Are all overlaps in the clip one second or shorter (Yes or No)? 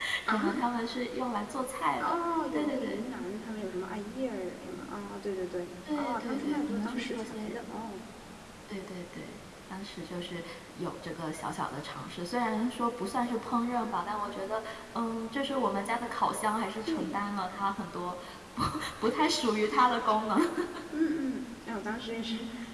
No